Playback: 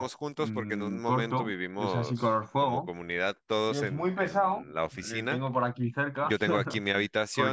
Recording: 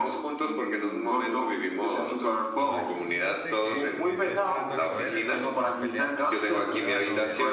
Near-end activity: present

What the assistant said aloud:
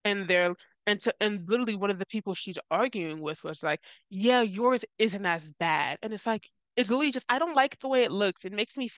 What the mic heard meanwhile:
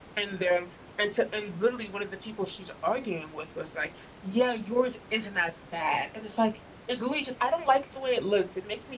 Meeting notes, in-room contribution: none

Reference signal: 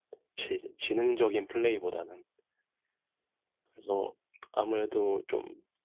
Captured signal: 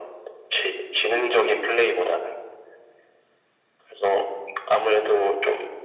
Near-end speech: none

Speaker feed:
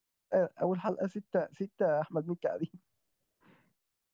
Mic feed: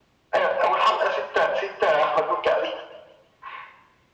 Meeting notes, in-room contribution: none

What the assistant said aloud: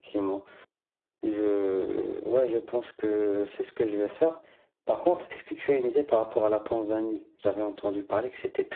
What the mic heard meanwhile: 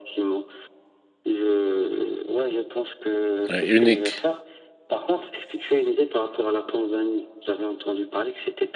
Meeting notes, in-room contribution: present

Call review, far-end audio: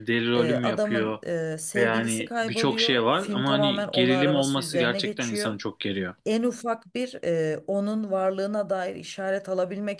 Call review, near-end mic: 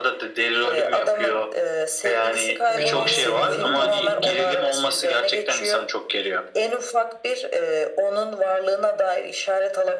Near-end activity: present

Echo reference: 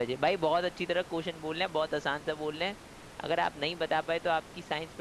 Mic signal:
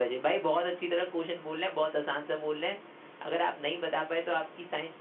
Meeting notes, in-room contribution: none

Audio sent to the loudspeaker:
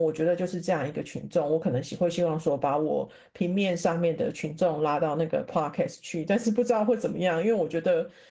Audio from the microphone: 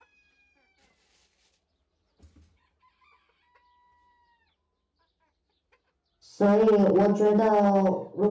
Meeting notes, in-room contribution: present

